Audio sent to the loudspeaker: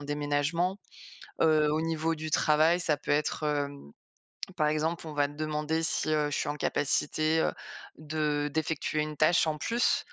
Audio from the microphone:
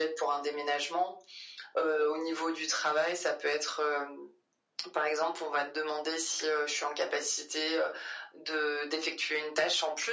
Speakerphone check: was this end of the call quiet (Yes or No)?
Yes